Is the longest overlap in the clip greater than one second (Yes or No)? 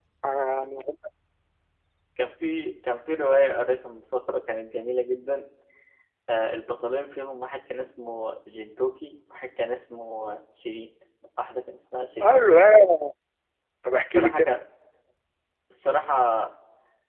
No